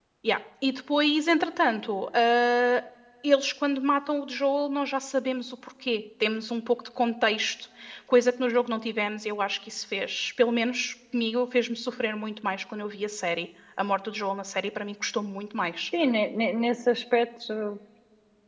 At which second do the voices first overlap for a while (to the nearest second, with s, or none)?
none